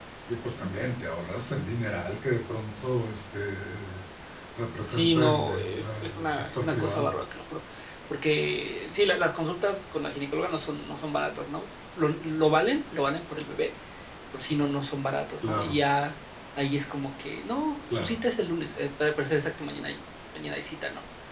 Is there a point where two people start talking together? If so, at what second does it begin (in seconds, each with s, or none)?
4.9 s